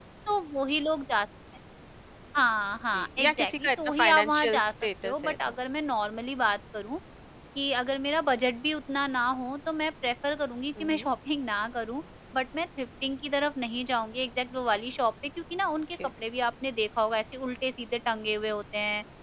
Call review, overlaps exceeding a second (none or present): present